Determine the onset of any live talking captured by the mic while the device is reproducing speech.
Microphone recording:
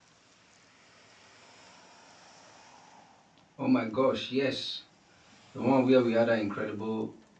4 s

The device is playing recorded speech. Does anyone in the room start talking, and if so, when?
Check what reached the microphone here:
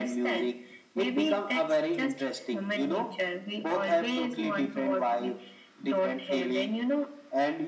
none

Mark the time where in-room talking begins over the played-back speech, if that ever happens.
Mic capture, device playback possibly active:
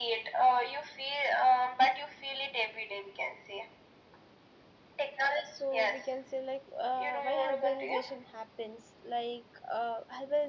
5 s

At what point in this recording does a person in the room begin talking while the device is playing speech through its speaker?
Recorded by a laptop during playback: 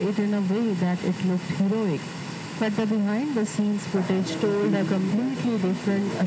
4 s

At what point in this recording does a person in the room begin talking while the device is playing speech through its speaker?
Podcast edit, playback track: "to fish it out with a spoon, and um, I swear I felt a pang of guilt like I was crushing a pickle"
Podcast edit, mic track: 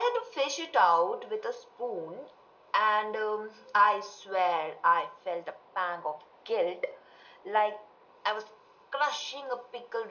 none

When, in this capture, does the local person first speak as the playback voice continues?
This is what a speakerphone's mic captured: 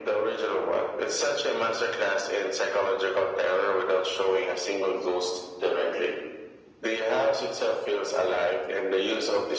none

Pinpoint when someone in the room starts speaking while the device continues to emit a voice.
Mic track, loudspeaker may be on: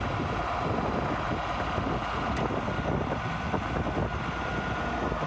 none

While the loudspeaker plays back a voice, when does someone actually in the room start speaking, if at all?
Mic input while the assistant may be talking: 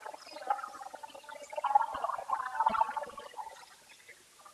none

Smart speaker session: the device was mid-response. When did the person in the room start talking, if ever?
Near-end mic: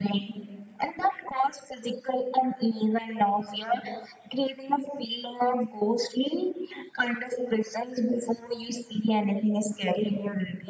none

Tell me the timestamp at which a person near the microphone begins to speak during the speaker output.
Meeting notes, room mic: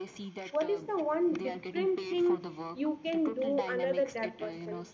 1 s

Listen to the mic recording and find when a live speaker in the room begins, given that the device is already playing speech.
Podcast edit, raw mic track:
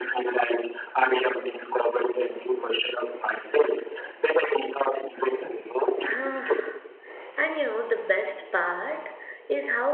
6 s

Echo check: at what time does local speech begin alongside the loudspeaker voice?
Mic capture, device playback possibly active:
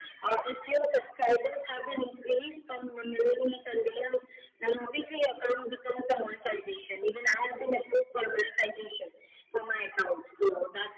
none

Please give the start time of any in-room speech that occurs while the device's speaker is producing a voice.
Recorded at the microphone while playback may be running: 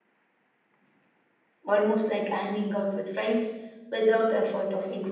2 s

